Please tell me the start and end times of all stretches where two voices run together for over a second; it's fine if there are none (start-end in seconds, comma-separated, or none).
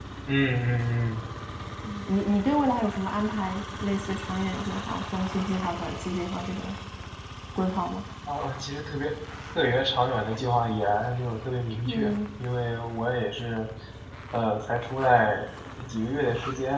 none